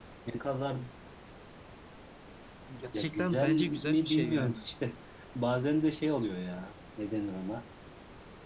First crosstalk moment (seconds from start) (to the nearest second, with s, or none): 3 s